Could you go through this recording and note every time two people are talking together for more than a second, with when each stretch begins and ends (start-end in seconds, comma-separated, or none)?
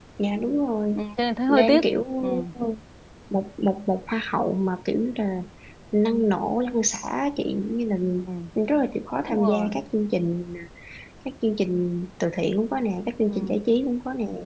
none